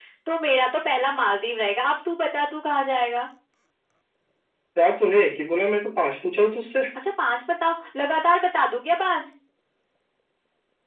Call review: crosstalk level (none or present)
none